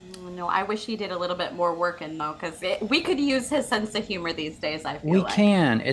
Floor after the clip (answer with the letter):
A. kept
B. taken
B